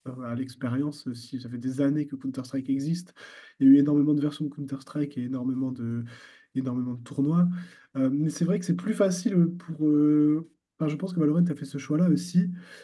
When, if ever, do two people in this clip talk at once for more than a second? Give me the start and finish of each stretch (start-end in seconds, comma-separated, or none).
none